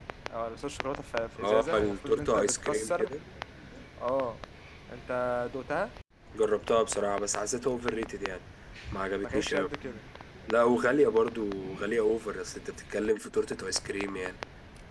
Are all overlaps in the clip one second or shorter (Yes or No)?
No